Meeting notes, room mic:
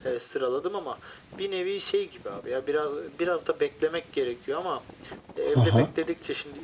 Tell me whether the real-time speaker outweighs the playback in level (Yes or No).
Yes